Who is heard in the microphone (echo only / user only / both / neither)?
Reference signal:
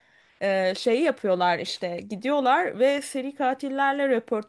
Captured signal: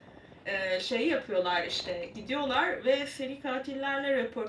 echo only